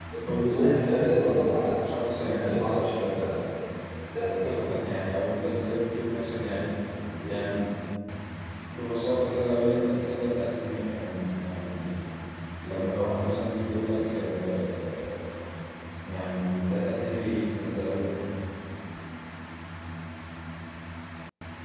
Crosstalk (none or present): present